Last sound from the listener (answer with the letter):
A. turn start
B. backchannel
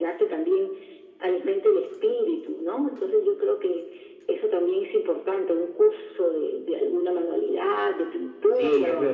A